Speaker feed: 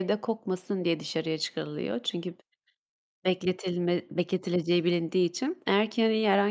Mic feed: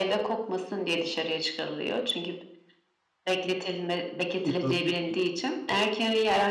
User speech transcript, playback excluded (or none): ki, tabii ki. Kesinlik